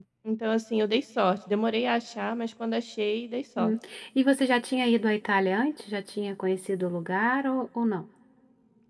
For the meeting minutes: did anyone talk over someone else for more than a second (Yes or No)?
No